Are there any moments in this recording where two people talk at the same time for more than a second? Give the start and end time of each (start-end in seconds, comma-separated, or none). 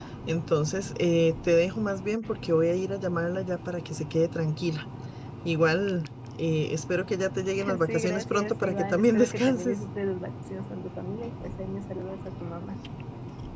7.8-9.8